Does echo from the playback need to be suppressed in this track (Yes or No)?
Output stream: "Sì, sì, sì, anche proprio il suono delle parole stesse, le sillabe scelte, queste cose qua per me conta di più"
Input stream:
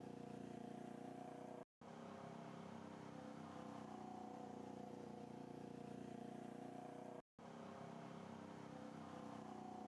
No